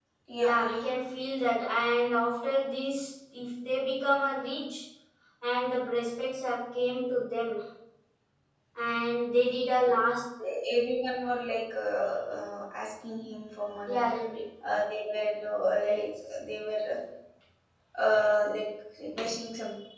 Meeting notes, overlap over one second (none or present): none